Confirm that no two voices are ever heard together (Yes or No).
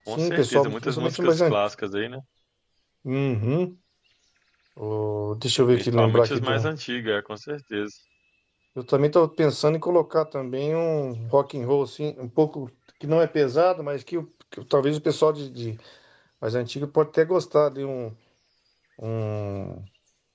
No